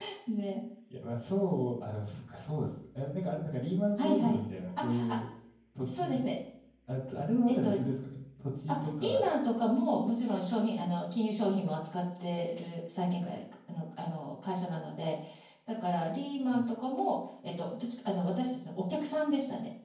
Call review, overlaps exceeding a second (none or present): none